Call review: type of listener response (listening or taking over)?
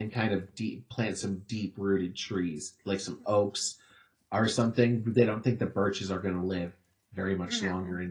listening